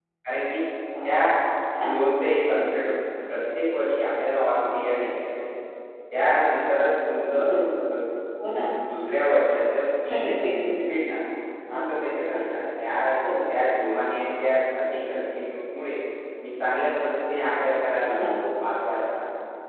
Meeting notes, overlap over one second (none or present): none